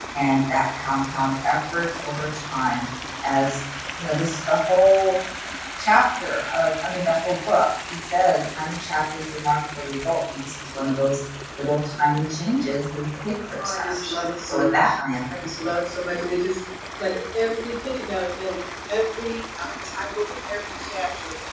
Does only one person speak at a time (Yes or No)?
No